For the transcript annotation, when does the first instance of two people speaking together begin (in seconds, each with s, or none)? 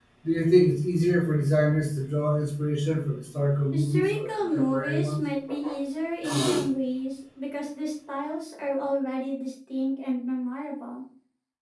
3.7 s